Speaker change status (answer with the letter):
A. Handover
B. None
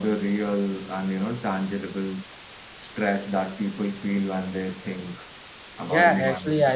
A